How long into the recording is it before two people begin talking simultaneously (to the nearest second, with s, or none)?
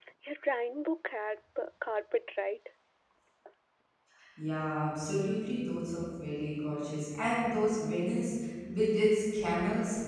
none